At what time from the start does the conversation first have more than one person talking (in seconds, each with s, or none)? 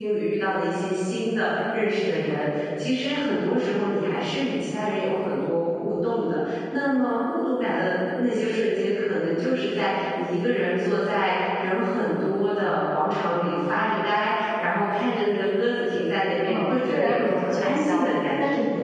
16.5 s